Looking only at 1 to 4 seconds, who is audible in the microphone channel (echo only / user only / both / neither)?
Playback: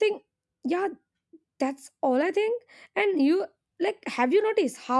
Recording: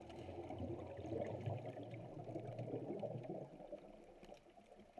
neither